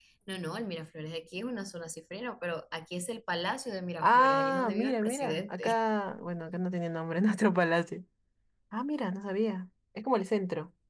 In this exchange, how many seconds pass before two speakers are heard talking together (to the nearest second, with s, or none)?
4 s